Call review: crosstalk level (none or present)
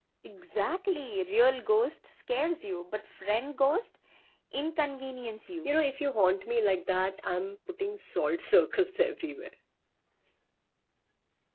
none